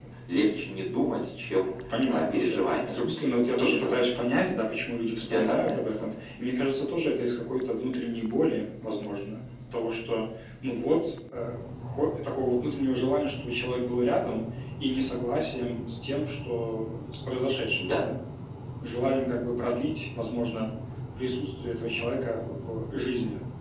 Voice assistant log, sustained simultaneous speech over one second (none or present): present